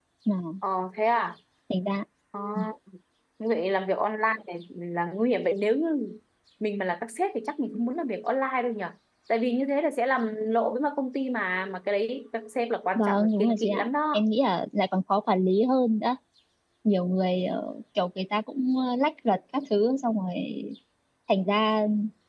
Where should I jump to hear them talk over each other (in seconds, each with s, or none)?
12.9 s